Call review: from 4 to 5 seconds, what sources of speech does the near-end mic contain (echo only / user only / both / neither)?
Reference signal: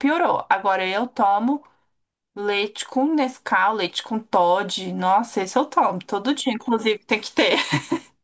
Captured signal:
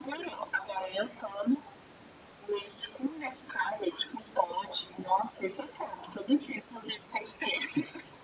echo only